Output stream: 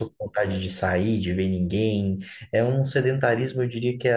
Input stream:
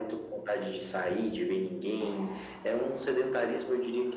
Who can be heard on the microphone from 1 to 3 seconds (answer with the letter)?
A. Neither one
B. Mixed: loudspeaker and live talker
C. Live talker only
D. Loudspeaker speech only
D